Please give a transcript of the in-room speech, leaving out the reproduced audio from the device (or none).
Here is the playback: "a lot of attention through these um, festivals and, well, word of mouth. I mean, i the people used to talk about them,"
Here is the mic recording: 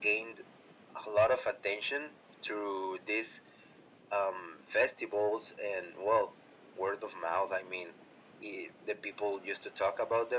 none